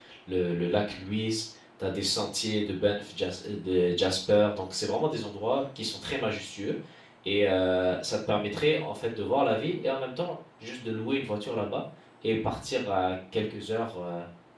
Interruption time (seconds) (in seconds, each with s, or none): none